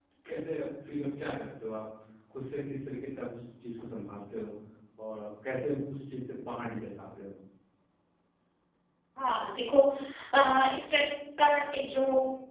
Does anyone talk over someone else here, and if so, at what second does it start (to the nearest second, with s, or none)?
none